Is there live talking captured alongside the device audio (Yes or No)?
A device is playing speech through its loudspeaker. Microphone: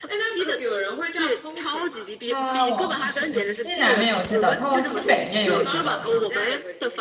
Yes